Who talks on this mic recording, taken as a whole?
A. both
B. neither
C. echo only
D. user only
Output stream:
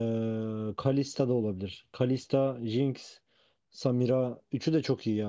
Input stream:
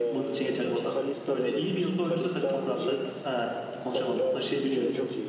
A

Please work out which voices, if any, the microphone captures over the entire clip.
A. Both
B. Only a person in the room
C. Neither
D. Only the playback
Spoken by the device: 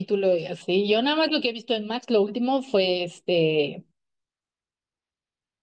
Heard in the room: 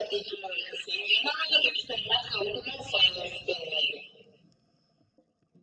D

